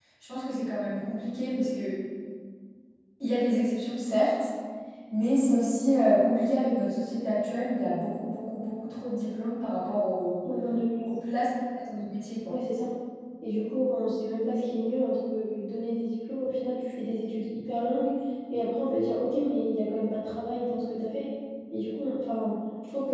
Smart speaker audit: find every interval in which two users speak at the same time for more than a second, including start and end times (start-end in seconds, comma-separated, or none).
none